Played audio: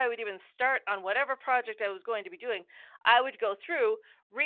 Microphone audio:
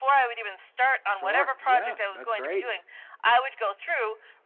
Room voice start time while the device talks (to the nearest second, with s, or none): 1 s